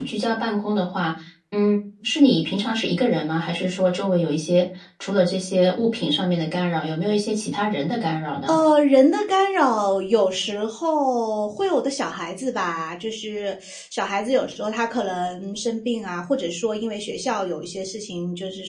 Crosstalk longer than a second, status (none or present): none